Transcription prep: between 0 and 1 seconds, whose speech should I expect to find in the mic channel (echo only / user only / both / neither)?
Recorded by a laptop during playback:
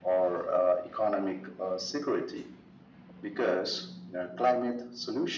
echo only